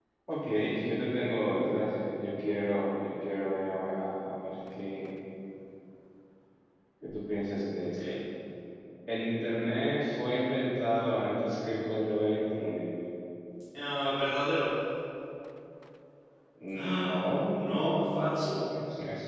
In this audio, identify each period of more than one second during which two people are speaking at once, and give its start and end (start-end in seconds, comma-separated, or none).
16.8-18.4